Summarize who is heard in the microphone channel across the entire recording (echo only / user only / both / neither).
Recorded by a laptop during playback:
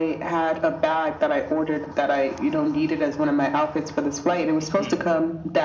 both